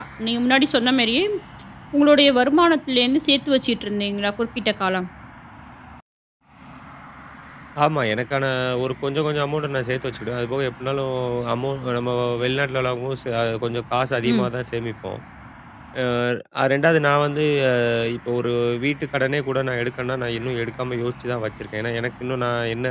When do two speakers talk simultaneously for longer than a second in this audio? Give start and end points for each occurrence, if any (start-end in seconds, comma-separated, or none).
none